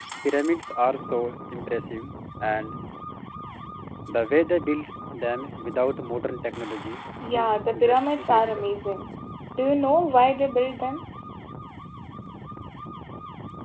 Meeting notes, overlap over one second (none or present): present